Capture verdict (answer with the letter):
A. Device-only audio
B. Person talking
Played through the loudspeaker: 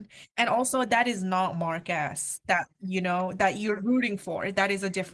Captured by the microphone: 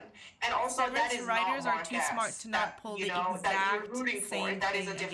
B